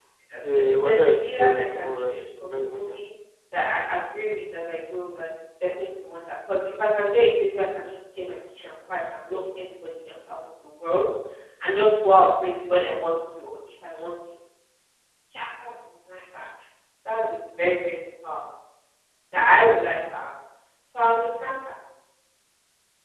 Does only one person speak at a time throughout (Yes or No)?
No